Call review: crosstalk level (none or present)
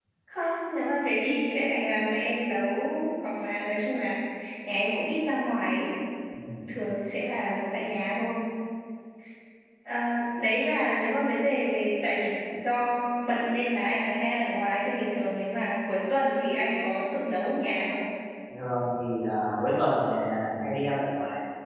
none